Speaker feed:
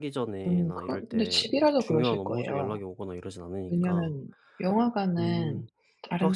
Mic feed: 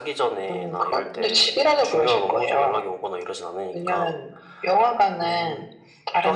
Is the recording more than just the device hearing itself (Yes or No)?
No